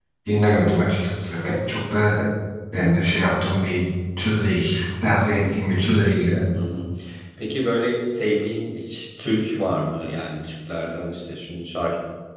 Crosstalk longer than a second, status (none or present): none